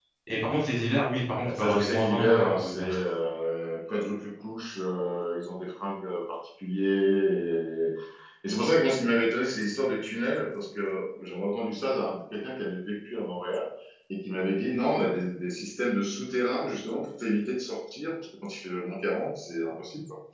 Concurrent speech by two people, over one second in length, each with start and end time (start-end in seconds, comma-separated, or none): 1.4-2.9